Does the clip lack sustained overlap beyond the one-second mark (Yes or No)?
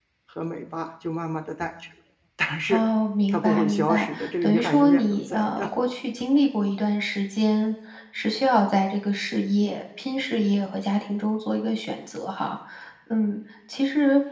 No